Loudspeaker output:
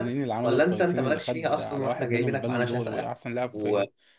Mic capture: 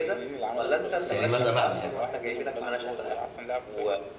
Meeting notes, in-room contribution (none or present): present